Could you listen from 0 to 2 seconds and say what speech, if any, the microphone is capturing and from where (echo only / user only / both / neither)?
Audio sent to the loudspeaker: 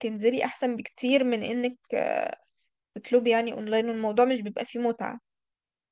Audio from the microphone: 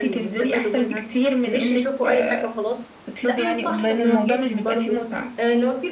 both